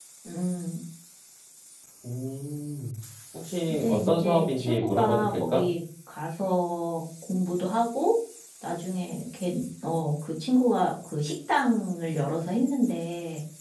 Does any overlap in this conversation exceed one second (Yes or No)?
Yes